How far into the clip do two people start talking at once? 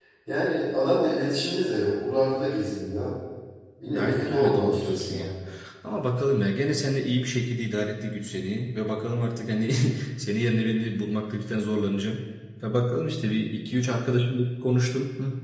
3.9 s

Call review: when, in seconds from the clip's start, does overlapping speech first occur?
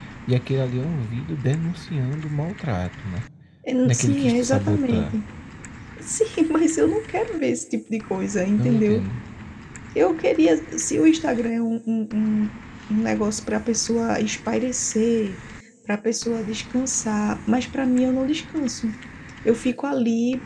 3.8 s

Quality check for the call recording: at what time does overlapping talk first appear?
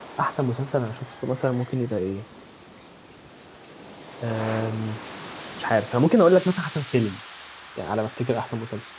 none

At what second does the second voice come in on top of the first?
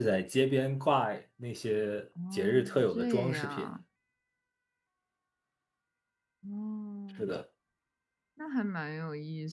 2.2 s

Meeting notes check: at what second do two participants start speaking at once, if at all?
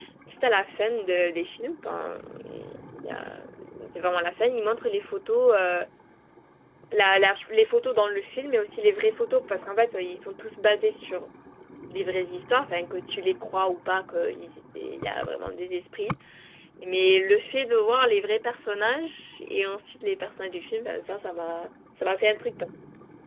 none

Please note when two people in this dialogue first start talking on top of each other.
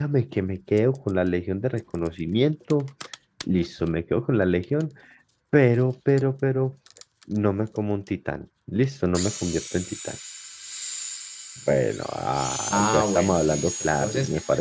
12.7 s

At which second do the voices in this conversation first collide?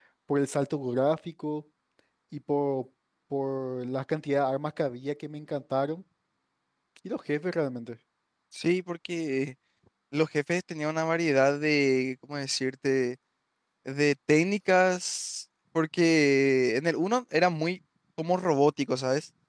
none

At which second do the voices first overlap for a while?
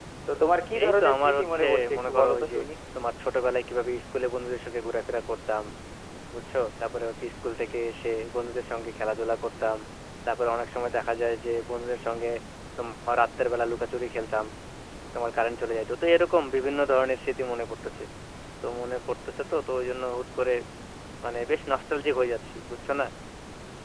0.8 s

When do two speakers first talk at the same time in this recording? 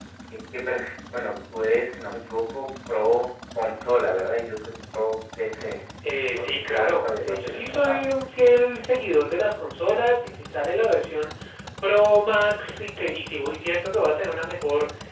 6.4 s

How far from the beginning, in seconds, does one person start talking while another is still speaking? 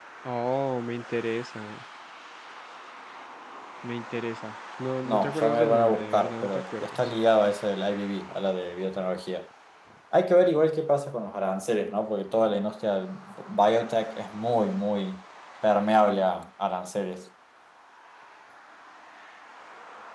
5.0 s

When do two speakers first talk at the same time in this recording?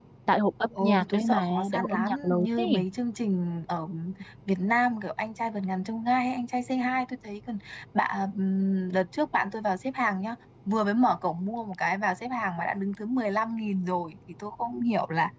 0.8 s

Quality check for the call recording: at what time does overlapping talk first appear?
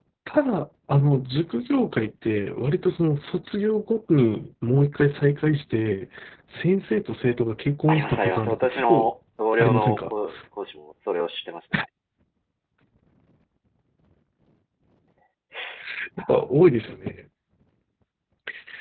7.9 s

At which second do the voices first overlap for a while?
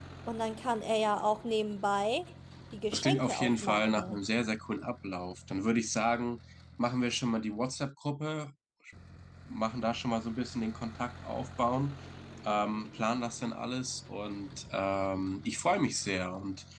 2.9 s

